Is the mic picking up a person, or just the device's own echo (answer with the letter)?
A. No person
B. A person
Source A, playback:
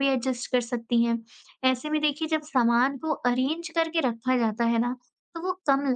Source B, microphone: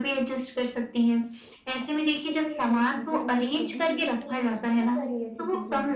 B